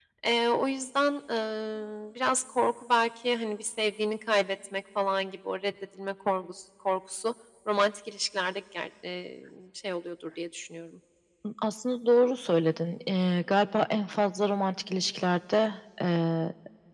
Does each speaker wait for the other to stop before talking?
Yes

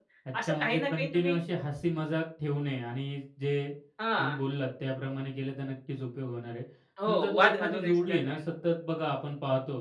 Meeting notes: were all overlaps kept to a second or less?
No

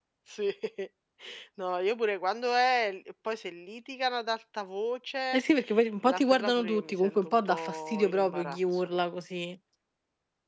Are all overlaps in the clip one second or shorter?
No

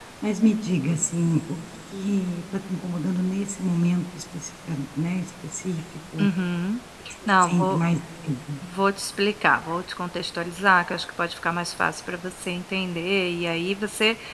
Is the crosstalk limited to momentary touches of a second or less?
Yes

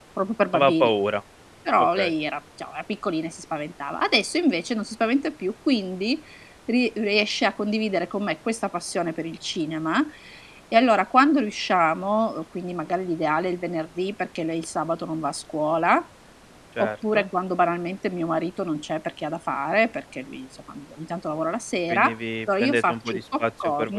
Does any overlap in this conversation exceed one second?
Yes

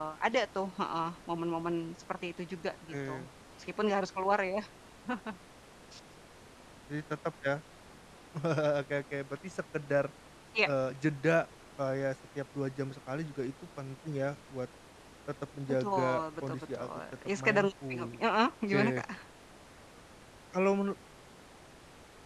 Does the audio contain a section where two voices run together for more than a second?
Yes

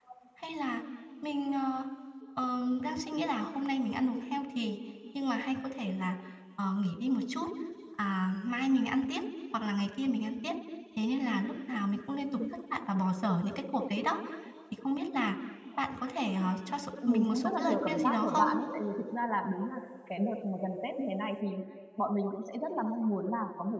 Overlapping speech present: Yes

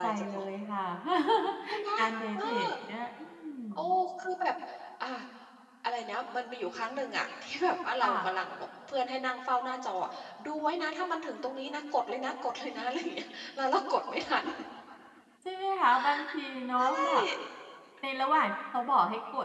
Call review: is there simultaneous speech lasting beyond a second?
No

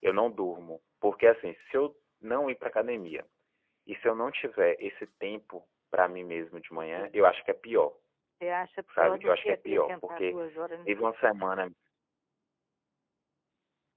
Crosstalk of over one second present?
Yes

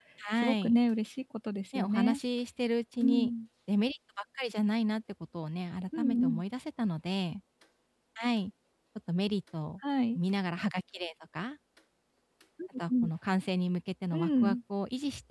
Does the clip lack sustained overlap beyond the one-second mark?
Yes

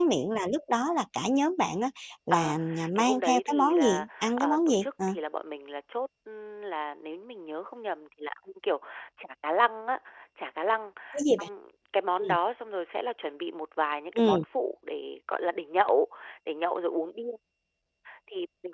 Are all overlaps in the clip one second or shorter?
No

